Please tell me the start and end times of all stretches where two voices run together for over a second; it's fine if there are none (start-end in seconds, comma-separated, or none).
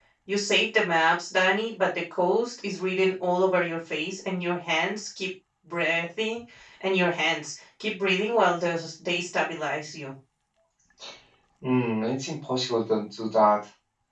none